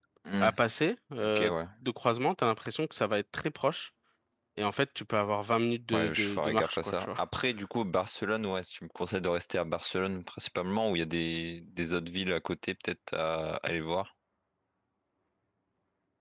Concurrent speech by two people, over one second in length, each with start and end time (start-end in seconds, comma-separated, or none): 5.9-7.2